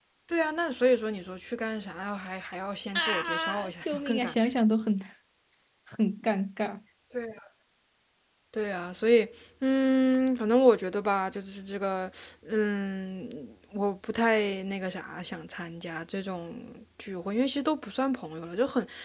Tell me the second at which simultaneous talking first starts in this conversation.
3 s

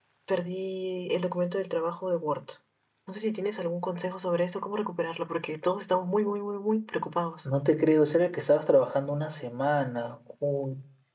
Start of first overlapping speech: none

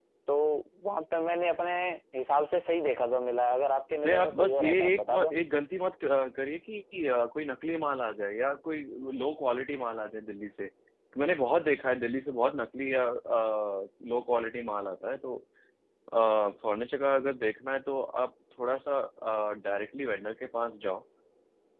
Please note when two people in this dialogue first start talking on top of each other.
4 s

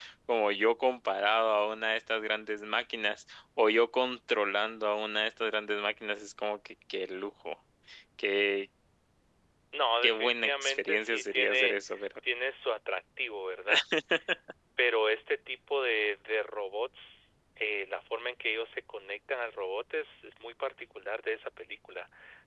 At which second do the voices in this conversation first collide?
10 s

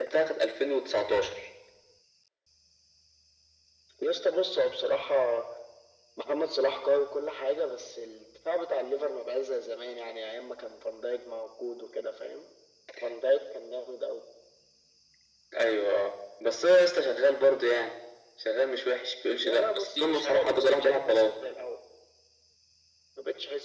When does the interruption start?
19 s

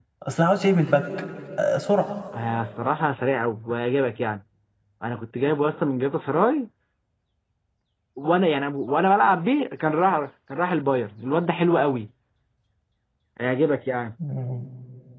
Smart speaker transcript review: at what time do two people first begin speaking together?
none

